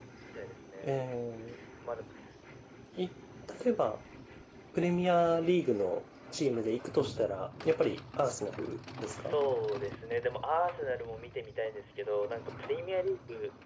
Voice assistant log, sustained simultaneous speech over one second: none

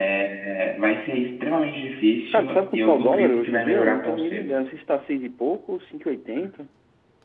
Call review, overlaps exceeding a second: present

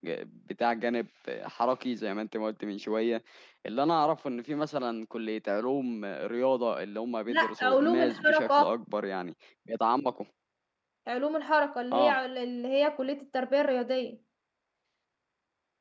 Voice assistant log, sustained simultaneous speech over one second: present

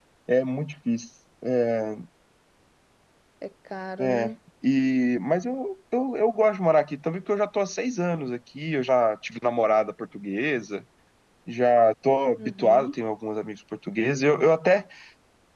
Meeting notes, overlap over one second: none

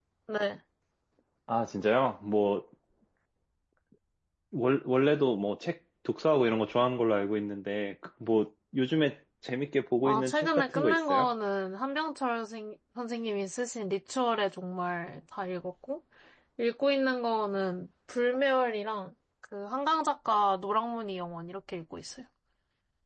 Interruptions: present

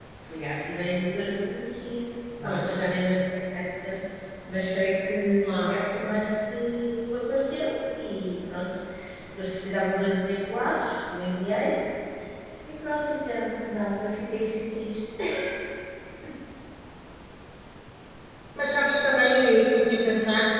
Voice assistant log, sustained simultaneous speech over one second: none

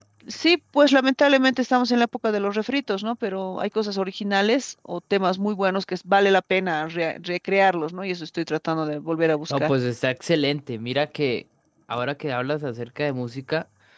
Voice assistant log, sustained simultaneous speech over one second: none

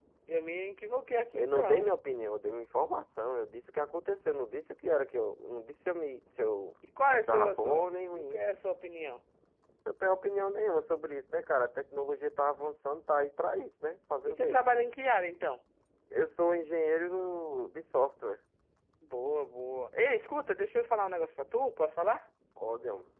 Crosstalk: present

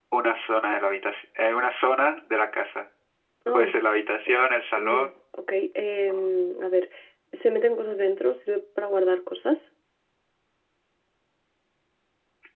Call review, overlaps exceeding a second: none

